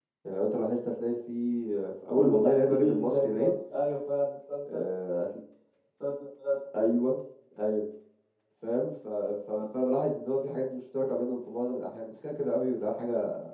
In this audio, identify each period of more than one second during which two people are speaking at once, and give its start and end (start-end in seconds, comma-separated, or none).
2.1-3.5